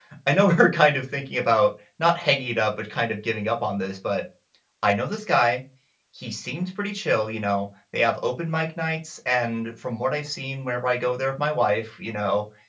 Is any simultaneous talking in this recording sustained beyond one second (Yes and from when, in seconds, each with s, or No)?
No